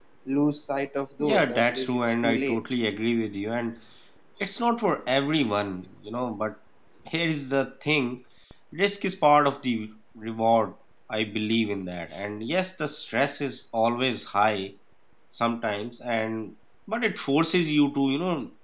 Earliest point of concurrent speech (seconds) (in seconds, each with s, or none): 1.2 s